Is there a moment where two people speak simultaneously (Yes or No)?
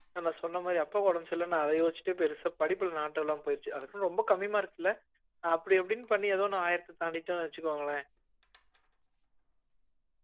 No